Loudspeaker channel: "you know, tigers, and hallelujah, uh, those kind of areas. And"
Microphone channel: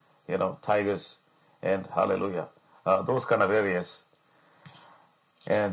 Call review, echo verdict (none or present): present